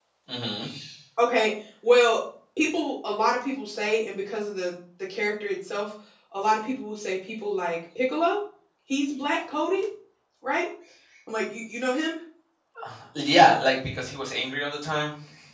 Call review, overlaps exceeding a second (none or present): none